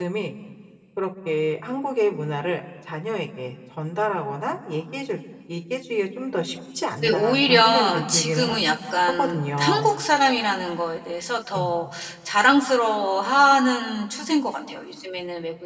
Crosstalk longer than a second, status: present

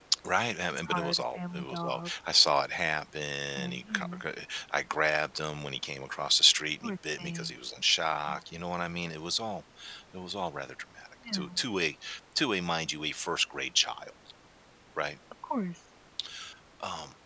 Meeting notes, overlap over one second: present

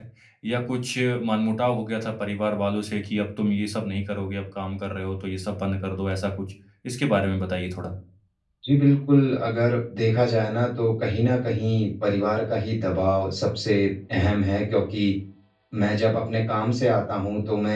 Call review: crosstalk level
none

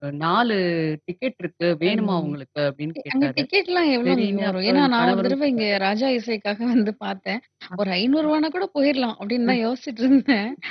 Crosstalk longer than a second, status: present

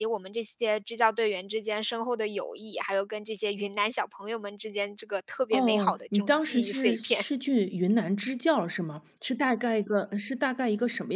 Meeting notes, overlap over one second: present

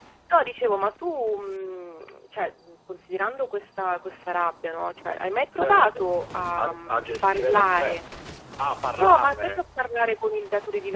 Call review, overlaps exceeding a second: present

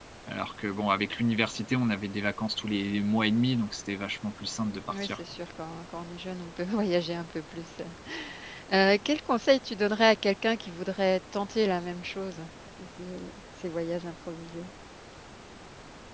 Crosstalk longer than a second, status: none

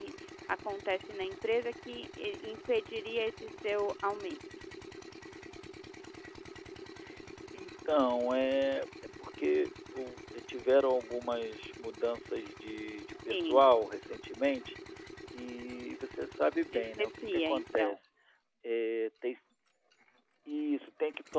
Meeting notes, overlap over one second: present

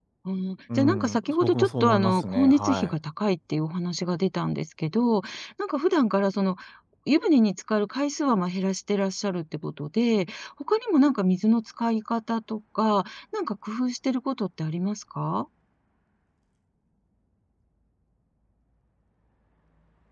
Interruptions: present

